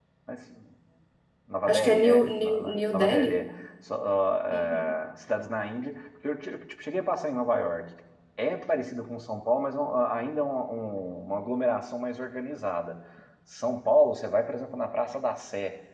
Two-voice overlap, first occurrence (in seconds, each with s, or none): 1.7 s